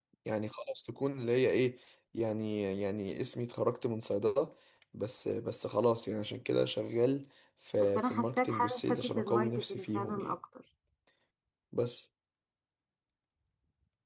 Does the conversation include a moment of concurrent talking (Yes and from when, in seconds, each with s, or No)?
Yes, from 7.8 s